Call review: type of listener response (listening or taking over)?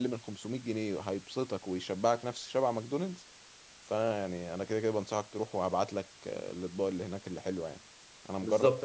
taking over